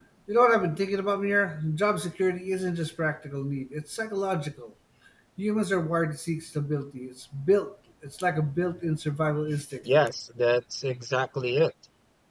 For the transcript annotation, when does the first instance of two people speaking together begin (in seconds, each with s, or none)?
none